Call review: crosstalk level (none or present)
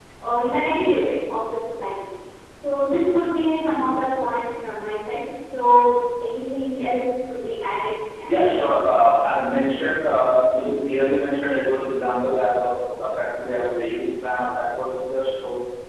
none